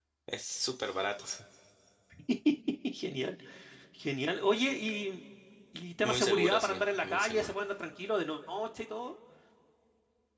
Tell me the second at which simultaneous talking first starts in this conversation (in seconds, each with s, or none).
6.0 s